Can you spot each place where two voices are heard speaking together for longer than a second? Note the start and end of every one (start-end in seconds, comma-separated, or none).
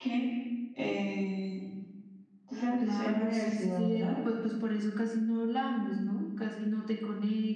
2.8-4.2